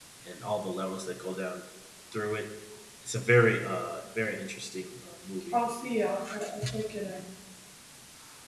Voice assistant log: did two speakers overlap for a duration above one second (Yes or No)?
No